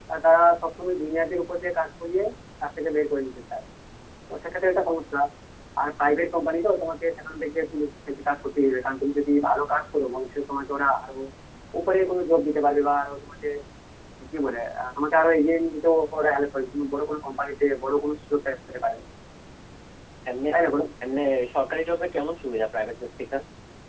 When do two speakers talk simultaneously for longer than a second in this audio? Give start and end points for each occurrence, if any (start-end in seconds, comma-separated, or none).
none